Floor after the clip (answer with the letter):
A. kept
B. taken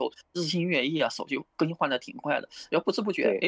A